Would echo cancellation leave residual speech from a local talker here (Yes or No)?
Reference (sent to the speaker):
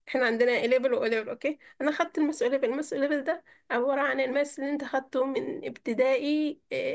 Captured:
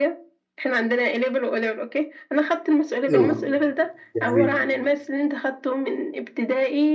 Yes